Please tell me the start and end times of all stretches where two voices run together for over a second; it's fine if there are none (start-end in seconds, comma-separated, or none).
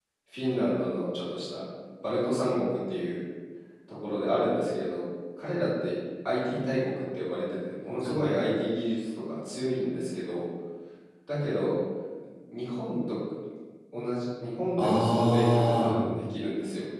14.8-16.0